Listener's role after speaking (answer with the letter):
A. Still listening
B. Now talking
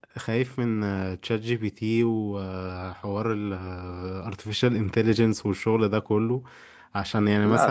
A